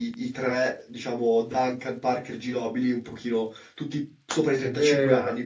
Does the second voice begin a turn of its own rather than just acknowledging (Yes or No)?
Yes